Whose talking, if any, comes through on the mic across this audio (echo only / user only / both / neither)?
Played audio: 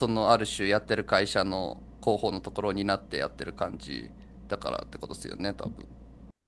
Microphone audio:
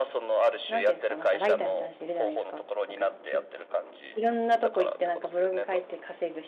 both